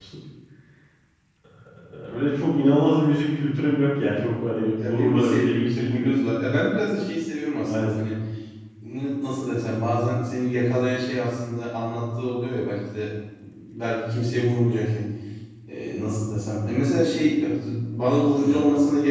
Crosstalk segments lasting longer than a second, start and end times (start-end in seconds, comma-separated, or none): 4.8-6.1